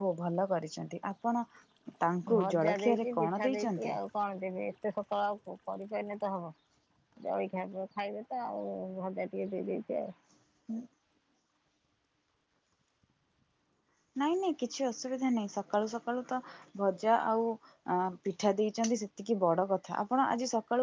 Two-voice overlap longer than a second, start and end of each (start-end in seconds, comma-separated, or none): 2.3-4.0